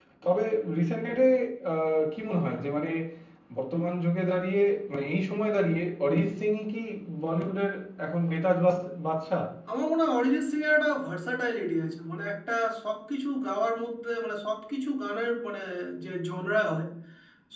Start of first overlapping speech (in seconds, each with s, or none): none